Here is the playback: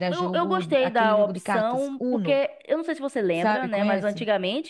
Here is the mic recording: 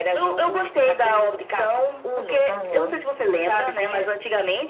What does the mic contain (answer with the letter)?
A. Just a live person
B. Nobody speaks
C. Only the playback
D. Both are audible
D